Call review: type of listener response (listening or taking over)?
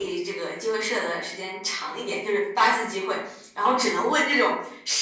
listening